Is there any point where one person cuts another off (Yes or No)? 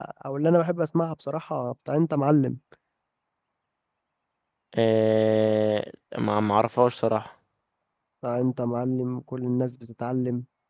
No